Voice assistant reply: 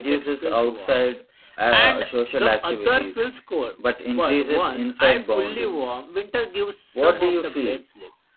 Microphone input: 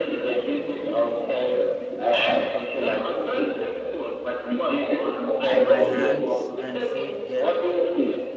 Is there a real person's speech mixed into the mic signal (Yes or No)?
Yes